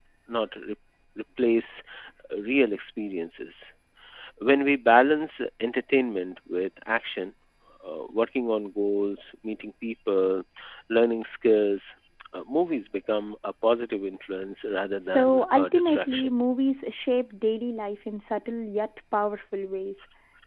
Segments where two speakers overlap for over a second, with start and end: 15.1-16.3

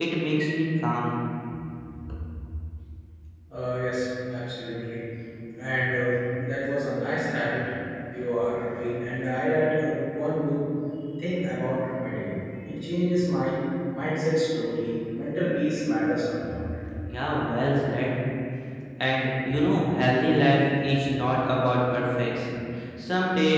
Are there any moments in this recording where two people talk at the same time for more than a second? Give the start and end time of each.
none

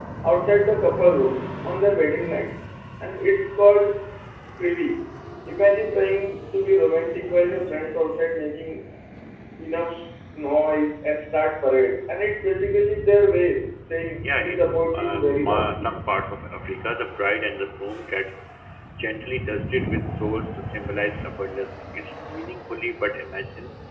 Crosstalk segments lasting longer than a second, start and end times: 14.2-15.9

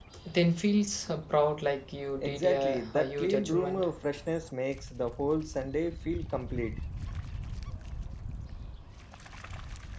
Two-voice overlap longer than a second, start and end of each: 2.2-3.9

